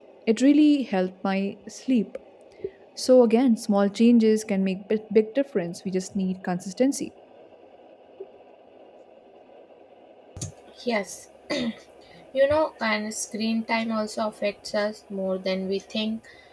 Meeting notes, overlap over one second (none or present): none